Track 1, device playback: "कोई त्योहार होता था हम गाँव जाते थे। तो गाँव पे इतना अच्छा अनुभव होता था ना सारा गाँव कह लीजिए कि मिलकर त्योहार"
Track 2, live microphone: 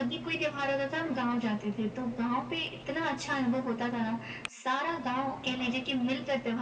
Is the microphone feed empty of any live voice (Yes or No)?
Yes